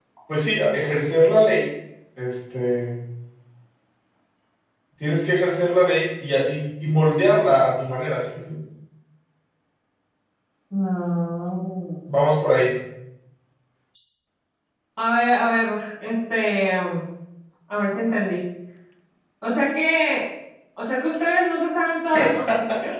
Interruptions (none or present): none